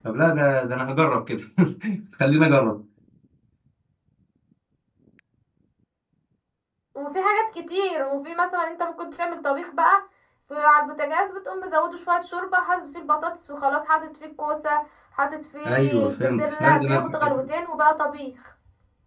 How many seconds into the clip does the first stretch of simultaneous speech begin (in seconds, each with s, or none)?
15.7 s